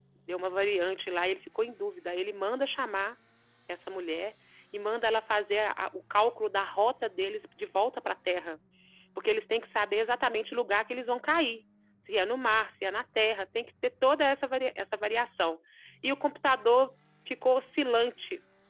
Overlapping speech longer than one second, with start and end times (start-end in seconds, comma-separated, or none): none